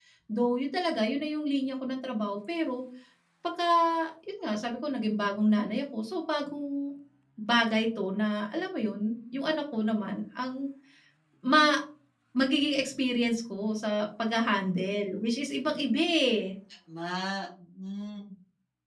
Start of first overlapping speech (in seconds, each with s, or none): none